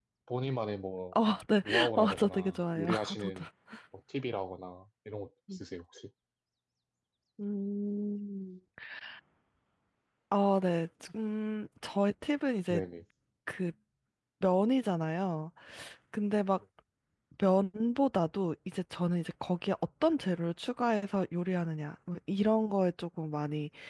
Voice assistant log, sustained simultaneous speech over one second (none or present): present